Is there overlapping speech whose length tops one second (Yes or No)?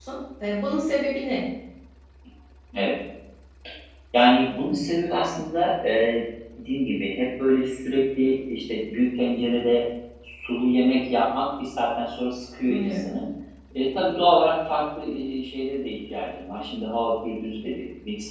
No